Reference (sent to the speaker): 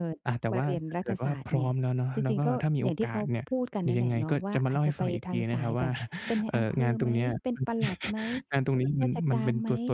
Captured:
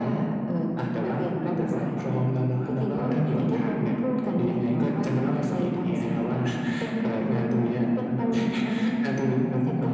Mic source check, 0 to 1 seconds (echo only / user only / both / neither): echo only